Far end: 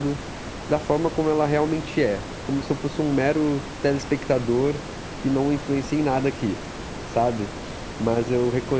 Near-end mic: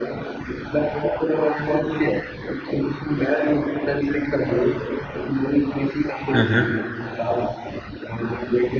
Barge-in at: 6.3 s

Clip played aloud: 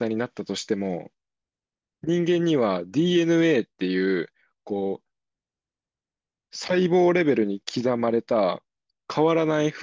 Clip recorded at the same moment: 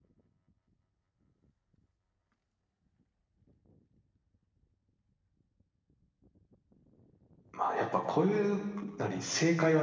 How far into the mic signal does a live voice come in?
7.5 s

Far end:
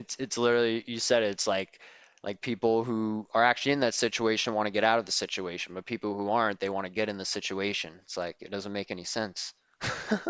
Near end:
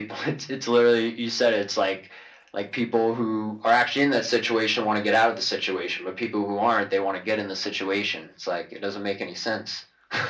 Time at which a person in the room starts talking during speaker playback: none

